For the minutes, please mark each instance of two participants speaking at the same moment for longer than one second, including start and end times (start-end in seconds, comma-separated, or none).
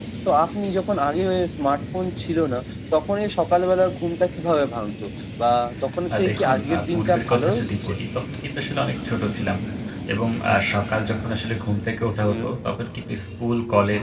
6.2-7.9